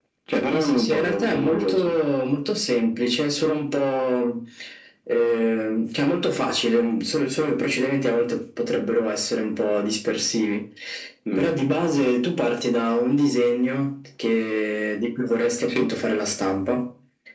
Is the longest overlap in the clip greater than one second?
Yes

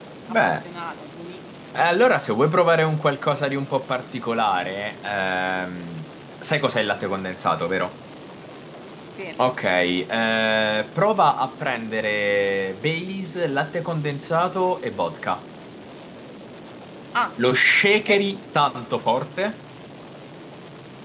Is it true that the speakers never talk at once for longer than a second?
Yes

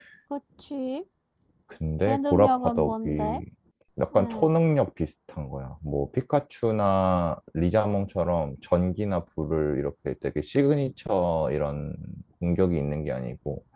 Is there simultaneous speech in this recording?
Yes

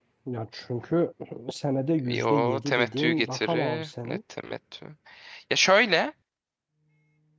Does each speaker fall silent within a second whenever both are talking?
No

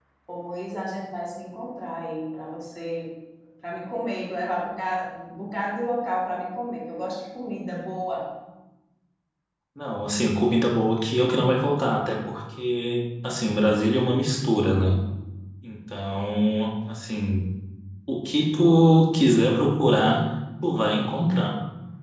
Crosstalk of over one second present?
No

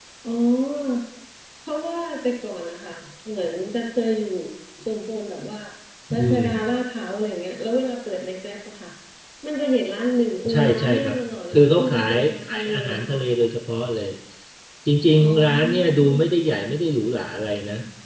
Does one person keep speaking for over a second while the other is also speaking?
Yes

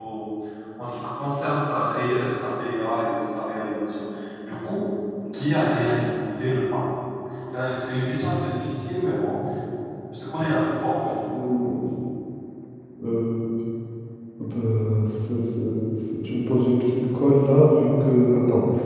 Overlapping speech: No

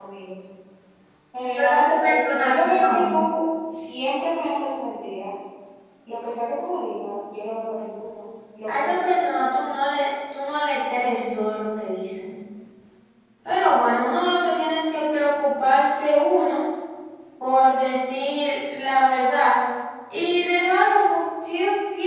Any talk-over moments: Yes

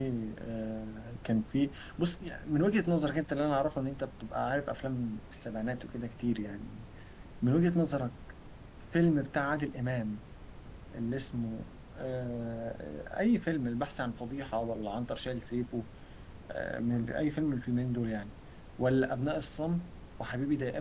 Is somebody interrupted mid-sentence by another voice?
No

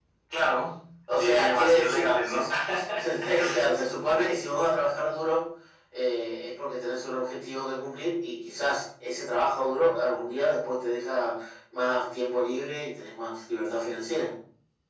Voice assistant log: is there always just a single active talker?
No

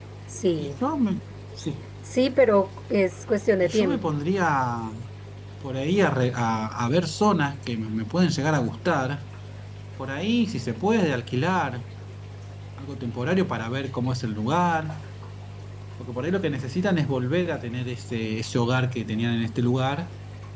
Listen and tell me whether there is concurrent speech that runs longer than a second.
No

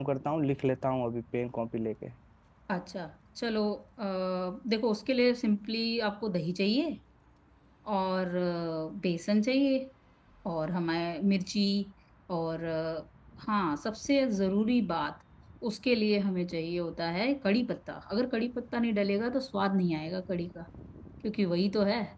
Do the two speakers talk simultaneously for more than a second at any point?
No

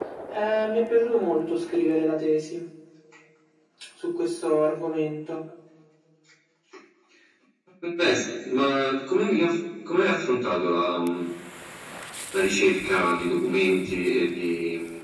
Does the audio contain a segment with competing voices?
No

